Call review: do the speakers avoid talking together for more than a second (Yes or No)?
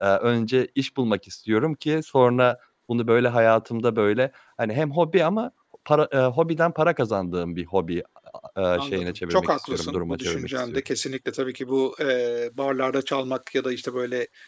No